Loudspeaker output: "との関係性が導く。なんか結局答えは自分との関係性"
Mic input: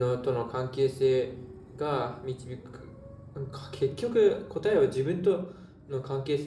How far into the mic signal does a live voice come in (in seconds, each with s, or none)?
none